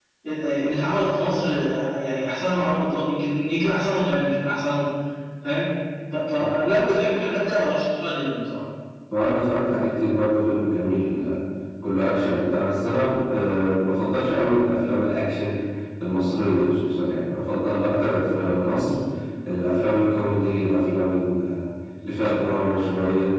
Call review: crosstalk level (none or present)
none